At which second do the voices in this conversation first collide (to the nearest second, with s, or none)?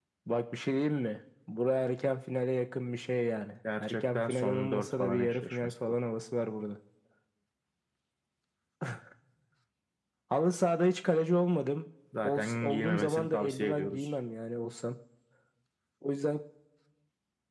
4 s